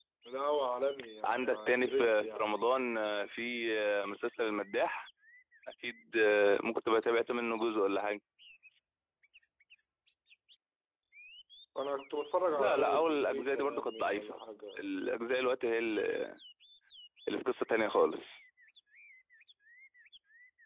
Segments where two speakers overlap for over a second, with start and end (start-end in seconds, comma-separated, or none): 1.2-2.5, 12.5-14.4